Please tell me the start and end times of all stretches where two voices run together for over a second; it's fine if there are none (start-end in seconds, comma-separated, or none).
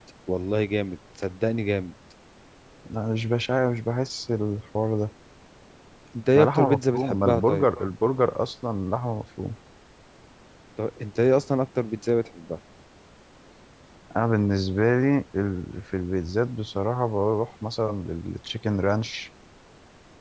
6.3-7.7